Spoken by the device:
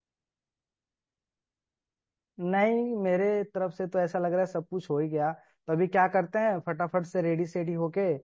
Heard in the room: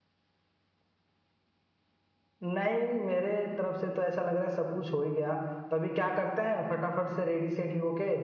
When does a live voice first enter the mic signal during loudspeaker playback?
none

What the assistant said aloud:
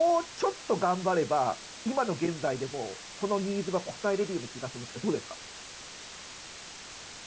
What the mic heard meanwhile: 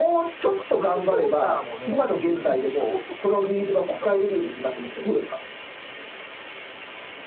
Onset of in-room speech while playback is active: 1 s

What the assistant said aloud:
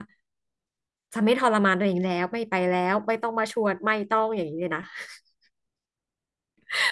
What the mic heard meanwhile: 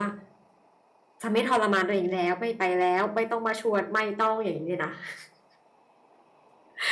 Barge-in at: none

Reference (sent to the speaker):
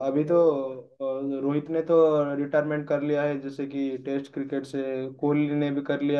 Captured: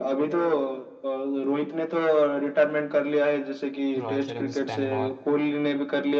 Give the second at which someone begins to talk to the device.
4 s

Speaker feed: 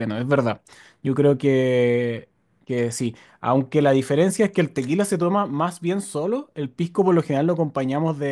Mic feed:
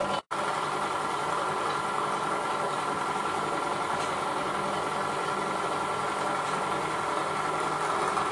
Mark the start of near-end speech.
none

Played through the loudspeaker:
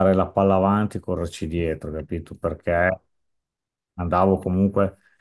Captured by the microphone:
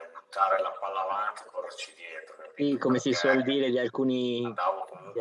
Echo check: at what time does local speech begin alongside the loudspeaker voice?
3 s

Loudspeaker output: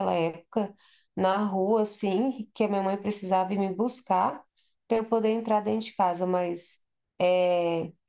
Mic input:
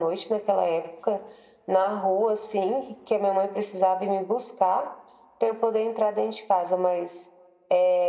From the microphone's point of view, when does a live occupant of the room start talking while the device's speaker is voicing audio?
none

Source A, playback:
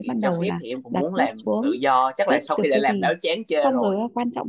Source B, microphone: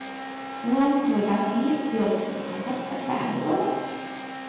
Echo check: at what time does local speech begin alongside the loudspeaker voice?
1 s

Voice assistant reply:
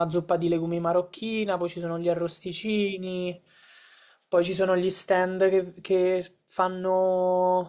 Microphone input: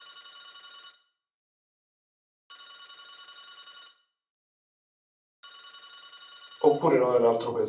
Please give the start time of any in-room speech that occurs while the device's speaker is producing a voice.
7 s

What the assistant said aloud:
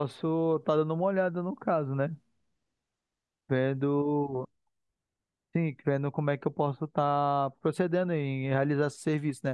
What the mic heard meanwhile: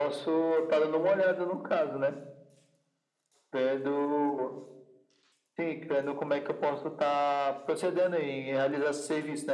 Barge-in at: none

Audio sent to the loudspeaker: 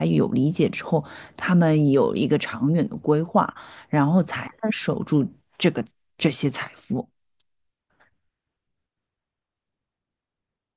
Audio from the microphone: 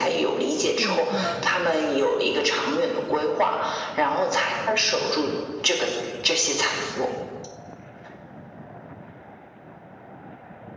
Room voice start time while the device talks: 1 s

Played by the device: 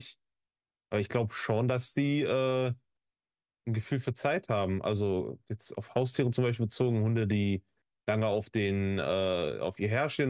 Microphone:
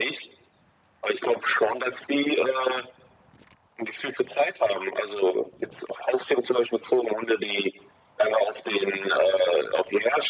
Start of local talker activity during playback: none

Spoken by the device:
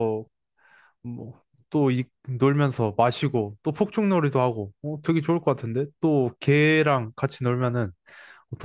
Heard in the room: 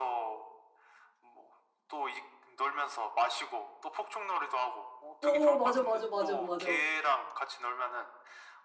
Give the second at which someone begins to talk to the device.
5 s

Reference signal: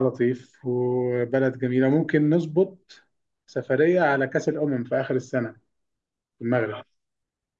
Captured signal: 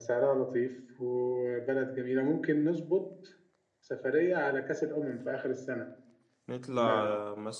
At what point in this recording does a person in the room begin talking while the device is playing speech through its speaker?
6 s

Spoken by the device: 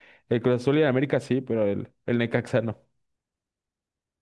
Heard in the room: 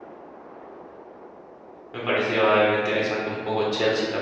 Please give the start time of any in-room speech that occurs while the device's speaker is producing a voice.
2 s

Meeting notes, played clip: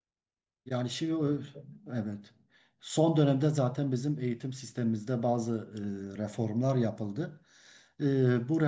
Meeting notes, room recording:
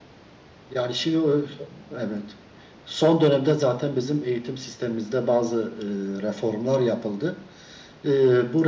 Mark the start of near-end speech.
none

